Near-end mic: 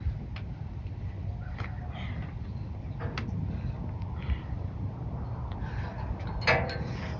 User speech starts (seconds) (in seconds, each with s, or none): none